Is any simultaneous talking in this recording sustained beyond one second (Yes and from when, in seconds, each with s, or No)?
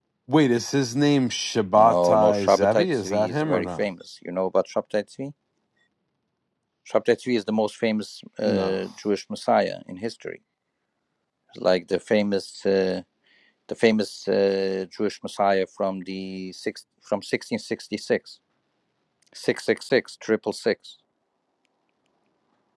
Yes, from 1.8 s